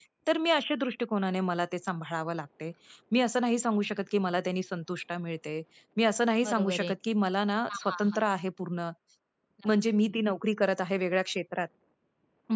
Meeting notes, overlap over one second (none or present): none